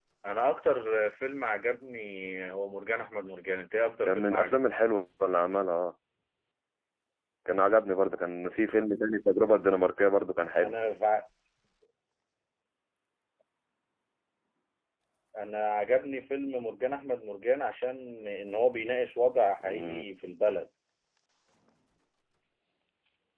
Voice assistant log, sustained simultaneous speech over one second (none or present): none